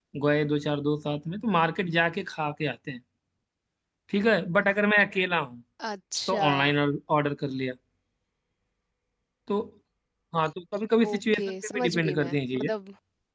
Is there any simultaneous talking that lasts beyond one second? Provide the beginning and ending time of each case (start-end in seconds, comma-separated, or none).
11.1-12.7